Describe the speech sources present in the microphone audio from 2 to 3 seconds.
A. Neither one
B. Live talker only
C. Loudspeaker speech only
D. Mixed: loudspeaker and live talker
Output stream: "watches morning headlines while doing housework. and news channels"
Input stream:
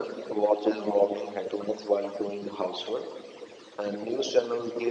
C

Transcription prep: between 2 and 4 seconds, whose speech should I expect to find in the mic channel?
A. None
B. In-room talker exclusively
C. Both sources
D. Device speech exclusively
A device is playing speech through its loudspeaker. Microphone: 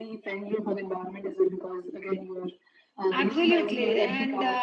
C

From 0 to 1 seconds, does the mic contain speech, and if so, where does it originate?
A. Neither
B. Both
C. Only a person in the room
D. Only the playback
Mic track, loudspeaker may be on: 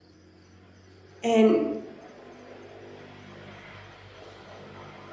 A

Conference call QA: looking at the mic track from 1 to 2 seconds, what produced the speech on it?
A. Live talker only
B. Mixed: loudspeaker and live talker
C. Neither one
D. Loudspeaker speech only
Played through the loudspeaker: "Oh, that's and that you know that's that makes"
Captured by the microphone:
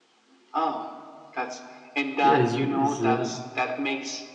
D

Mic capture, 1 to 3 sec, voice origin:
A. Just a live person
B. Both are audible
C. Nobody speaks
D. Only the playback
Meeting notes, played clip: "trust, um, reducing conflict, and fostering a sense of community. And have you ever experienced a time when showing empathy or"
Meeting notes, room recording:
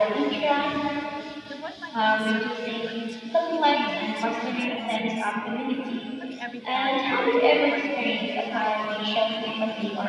B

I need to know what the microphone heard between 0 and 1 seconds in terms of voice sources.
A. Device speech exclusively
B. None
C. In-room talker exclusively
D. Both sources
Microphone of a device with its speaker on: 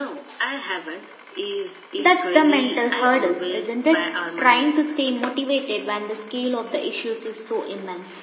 A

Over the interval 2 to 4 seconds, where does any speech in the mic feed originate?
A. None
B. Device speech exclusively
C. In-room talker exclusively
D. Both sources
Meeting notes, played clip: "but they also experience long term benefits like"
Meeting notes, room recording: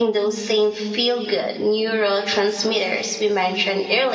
C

